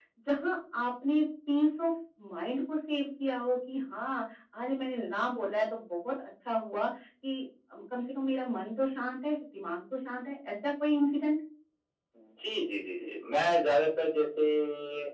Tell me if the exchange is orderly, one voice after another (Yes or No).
Yes